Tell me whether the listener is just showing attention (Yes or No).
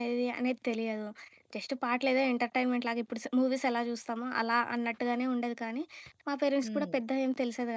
Yes